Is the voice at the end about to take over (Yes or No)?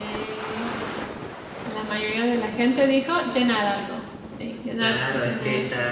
Yes